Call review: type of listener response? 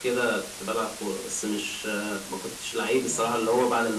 listening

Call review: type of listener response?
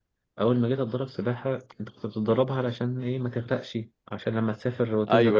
listening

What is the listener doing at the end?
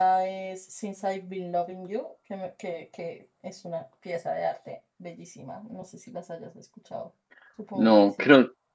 taking over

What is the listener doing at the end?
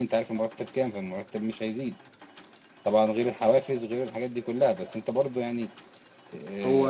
taking over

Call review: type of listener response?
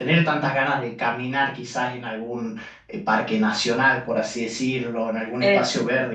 listening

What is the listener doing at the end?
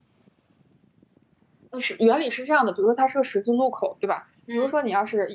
listening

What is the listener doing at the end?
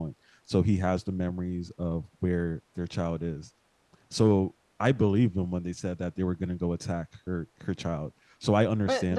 taking over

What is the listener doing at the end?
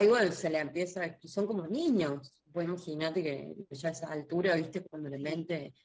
listening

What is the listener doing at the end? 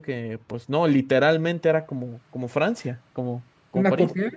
taking over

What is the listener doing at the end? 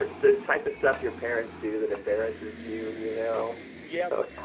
taking over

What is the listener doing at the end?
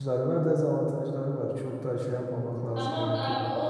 taking over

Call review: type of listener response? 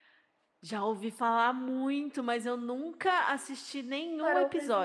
taking over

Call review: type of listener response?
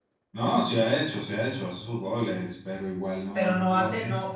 taking over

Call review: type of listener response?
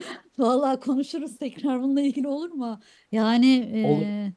listening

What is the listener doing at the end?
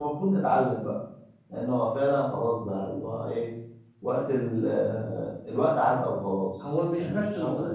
taking over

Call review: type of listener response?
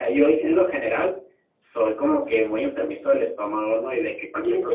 listening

